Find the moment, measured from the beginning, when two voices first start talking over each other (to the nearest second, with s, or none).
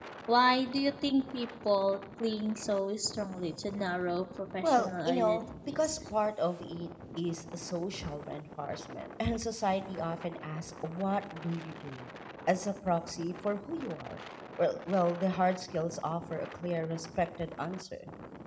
5 s